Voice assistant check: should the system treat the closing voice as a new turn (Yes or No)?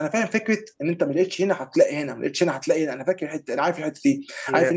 No